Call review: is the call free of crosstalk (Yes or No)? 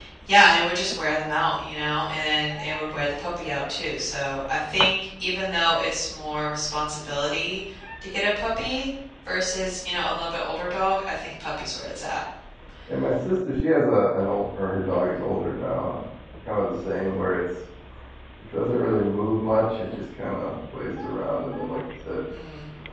Yes